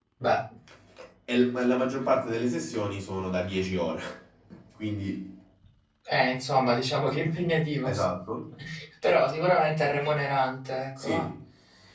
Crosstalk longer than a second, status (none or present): none